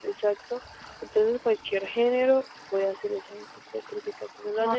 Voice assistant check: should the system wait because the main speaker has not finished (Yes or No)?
Yes